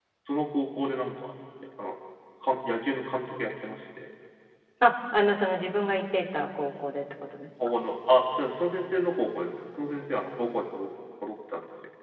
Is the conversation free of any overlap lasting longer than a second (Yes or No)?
Yes